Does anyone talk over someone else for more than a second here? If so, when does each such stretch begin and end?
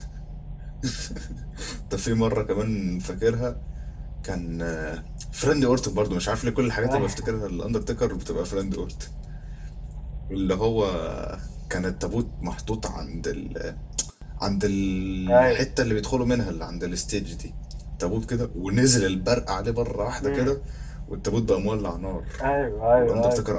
none

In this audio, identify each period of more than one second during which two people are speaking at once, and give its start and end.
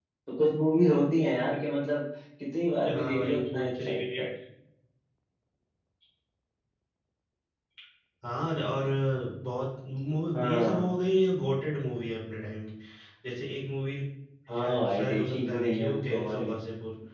2.9-4.3, 14.5-16.5

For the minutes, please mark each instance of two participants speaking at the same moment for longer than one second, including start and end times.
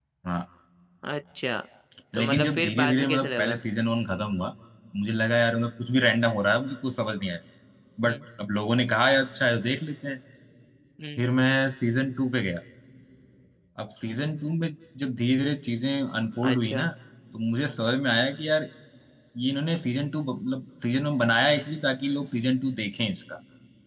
2.2-3.6

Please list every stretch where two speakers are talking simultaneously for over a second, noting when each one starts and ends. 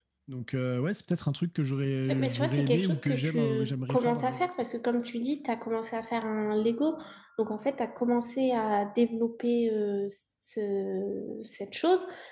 2.1-4.5

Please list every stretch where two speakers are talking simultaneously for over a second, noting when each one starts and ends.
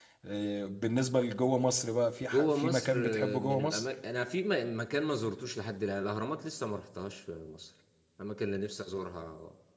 2.3-3.9

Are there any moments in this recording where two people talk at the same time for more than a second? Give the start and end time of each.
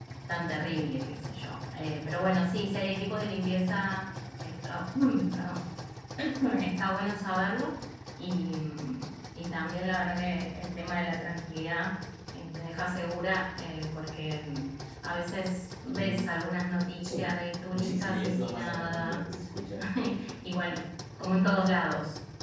17.8-19.3

